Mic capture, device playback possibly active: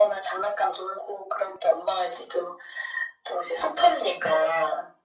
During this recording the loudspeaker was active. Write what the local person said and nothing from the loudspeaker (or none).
none